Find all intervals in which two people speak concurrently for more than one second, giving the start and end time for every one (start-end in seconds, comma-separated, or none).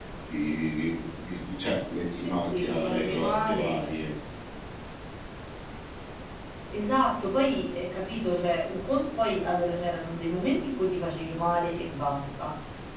2.2-3.8